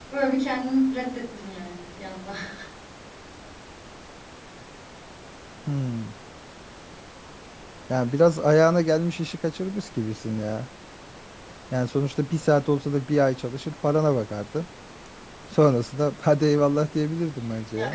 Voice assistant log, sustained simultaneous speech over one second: none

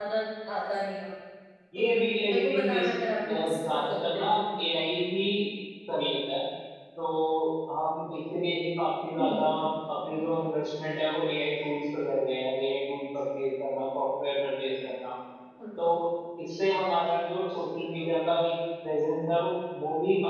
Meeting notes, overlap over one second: present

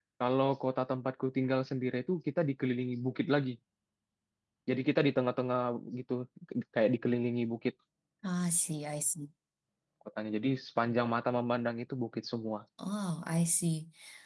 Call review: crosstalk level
none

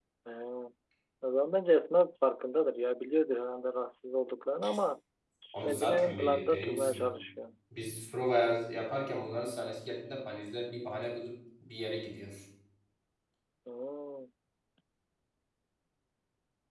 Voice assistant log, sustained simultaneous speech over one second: present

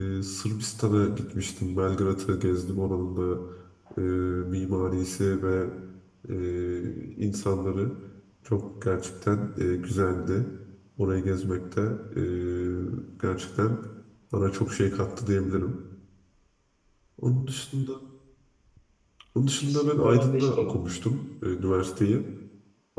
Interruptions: present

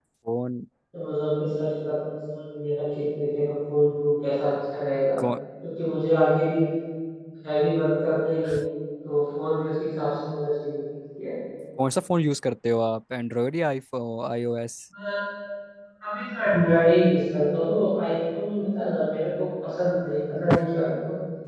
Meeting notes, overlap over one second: none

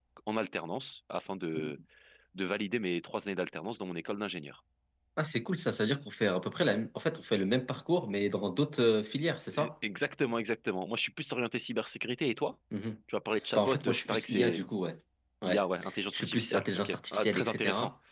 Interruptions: present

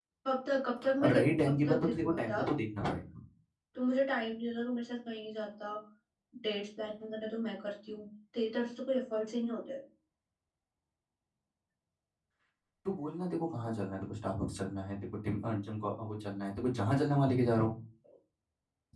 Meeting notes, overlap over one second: present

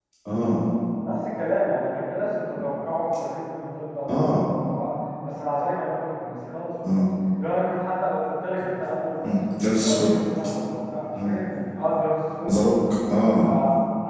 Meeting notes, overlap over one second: none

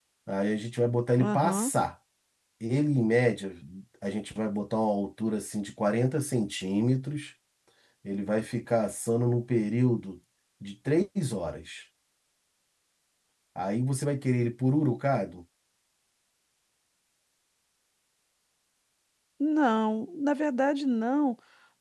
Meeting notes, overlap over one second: none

